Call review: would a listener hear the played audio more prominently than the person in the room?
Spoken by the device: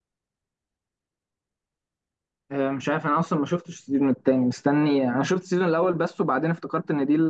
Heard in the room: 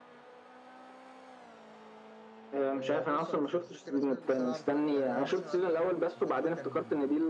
Yes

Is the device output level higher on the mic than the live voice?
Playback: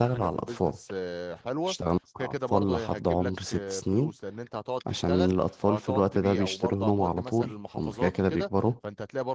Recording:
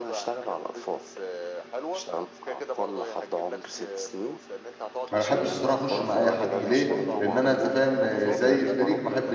No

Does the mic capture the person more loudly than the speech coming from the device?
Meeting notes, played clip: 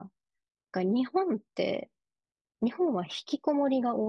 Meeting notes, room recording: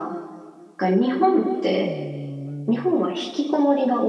No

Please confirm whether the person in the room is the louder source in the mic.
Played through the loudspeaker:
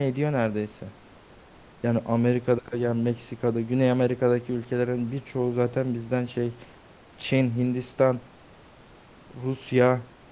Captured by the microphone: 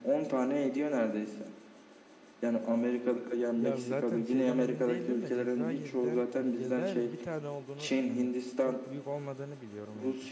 No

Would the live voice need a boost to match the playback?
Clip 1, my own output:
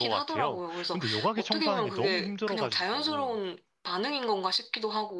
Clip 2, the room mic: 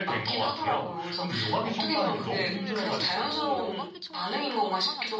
Yes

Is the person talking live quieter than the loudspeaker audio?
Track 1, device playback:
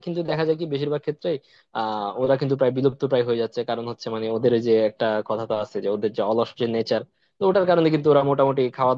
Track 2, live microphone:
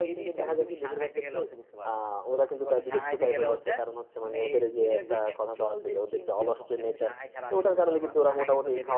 Yes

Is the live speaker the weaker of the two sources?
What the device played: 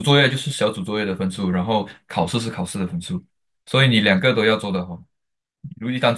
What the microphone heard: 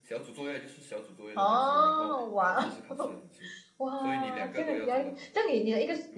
No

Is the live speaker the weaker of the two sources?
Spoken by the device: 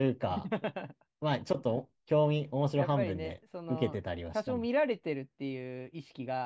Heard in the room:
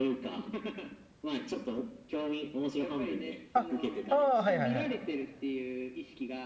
No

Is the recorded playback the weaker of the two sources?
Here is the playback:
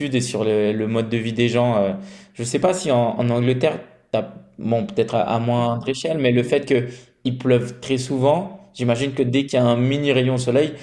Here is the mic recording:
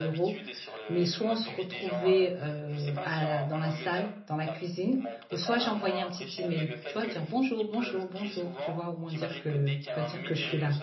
Yes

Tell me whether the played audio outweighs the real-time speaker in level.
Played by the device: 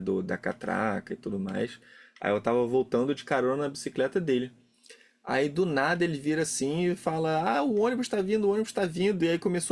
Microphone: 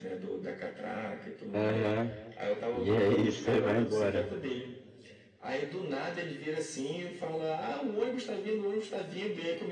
No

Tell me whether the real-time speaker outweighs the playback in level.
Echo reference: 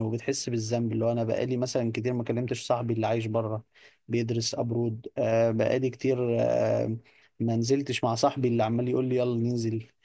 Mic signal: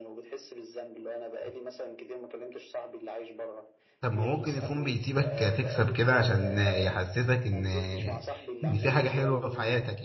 Yes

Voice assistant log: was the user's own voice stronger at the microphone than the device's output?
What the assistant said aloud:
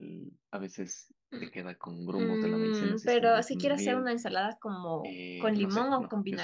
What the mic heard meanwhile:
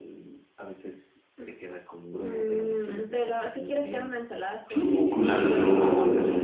Yes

